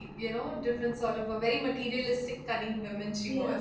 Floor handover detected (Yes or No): Yes